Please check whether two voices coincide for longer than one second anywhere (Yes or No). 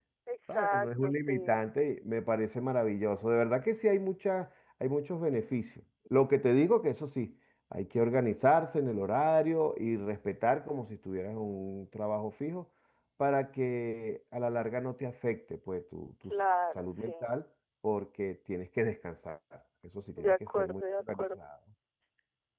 Yes